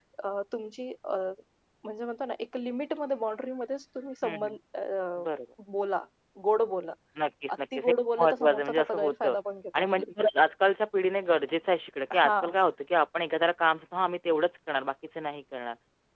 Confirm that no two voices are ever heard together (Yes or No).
No